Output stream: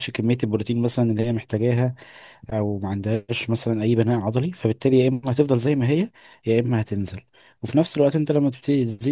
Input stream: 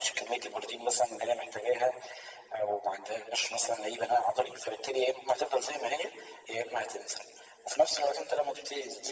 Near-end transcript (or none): none